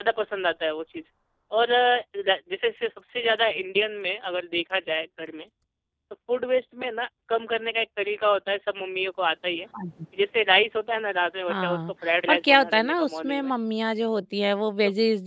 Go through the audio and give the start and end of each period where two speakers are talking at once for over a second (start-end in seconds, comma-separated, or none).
12.3-13.5